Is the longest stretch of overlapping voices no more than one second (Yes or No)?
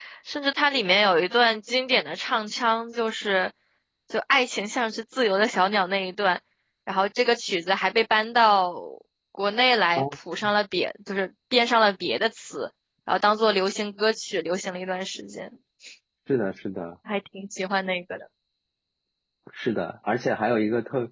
Yes